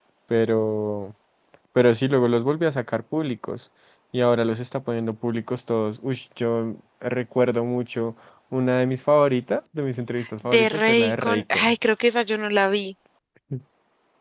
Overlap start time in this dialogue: 10.5 s

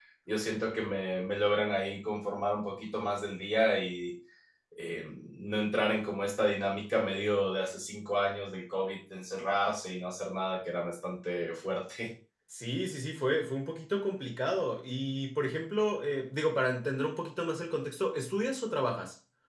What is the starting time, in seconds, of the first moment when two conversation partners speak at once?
none

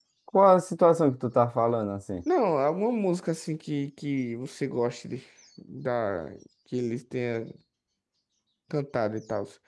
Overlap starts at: none

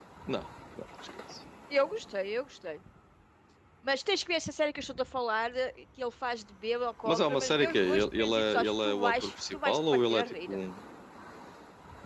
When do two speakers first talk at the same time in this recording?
7.0 s

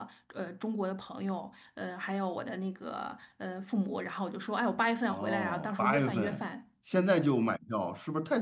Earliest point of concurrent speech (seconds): 5.1 s

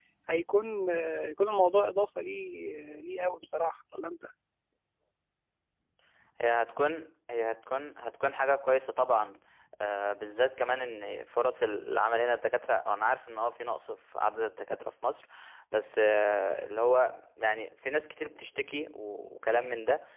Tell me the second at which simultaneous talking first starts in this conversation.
none

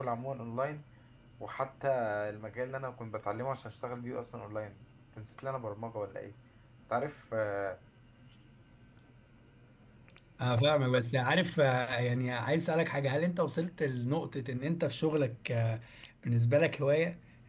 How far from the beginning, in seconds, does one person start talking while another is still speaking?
none

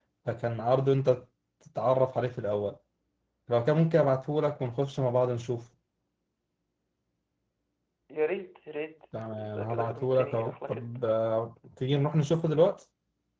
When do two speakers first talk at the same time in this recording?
9.1 s

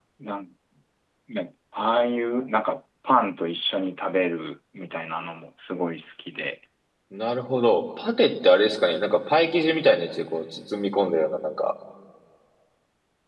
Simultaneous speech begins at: none

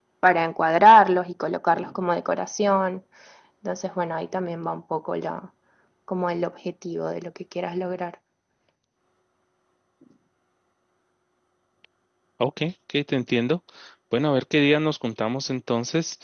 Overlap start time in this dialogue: none

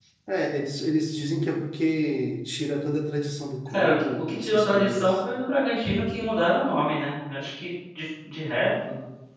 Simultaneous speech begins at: 3.7 s

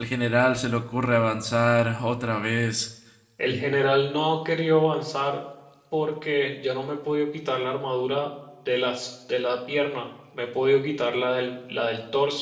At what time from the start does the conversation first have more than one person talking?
none

